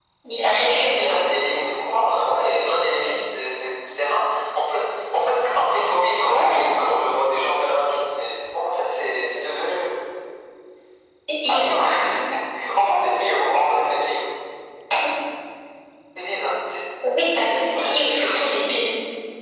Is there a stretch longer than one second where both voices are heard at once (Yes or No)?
Yes